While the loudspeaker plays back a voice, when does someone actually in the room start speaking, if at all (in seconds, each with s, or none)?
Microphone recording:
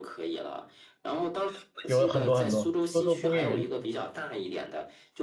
1.9 s